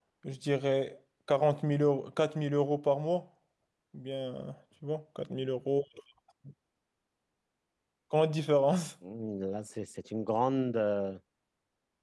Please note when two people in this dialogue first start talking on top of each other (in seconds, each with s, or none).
none